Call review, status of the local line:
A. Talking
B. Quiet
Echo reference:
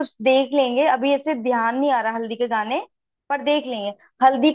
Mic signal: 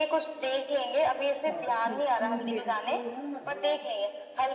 A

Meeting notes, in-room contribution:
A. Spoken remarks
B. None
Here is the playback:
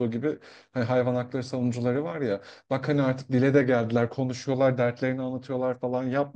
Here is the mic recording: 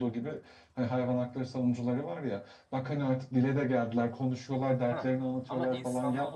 A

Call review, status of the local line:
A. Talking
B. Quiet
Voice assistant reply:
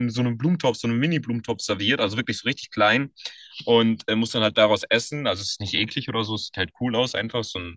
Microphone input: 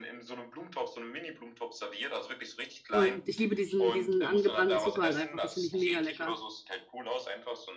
A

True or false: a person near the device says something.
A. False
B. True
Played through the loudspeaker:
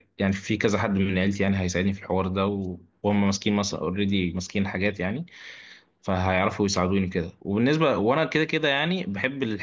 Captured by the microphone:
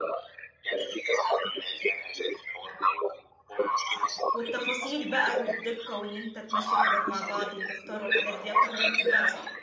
B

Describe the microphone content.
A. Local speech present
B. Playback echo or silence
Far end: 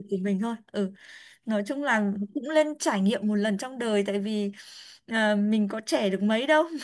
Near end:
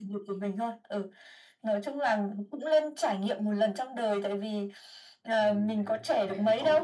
A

